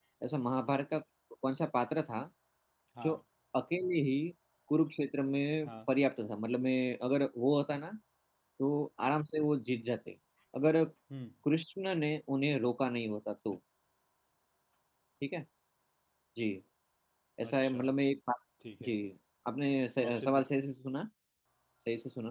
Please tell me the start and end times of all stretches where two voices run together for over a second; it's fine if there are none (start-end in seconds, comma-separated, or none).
none